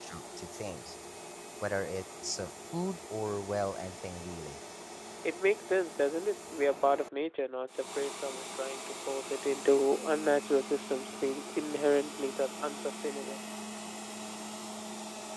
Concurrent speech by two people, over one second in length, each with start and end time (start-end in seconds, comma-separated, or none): none